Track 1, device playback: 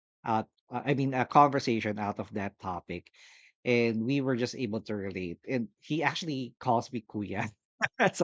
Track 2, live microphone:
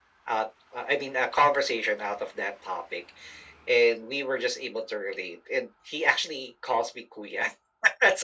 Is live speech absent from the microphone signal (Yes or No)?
Yes